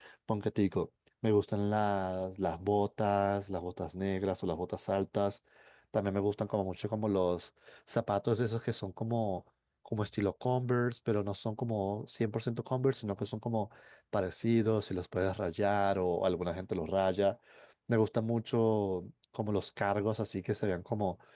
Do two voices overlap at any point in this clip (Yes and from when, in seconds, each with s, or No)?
No